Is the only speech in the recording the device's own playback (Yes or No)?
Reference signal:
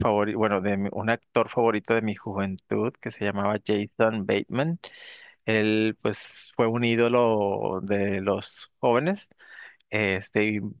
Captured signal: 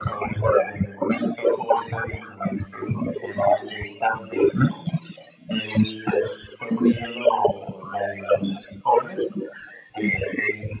Yes